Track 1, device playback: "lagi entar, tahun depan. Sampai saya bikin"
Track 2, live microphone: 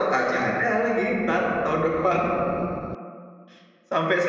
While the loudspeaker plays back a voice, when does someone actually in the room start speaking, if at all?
none

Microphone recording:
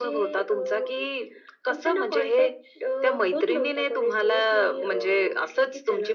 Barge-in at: none

